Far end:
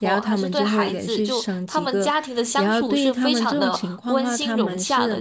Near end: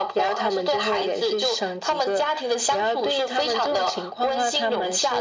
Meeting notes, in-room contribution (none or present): none